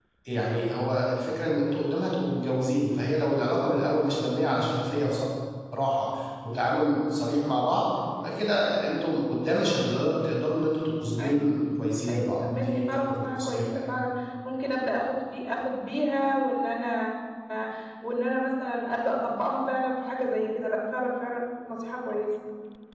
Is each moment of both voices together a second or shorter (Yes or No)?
No